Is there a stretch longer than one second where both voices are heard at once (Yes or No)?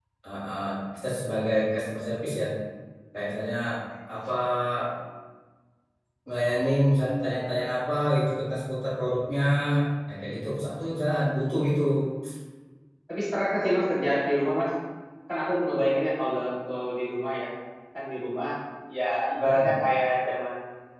No